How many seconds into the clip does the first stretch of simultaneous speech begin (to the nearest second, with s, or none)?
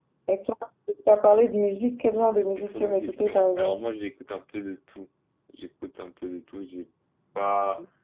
3 s